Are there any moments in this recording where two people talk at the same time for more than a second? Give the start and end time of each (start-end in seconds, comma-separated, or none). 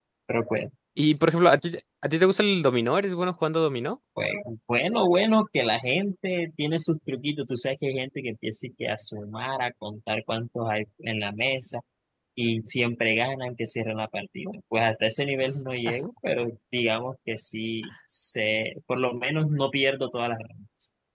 none